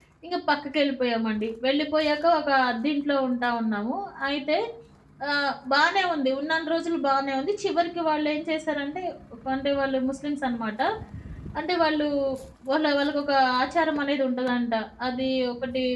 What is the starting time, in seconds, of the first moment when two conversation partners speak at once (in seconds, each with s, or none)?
none